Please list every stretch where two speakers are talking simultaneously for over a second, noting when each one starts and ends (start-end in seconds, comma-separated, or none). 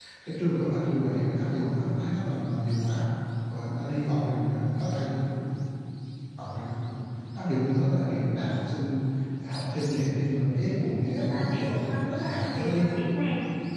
11.0-12.9